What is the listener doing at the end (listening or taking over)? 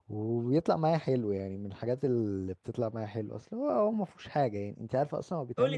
taking over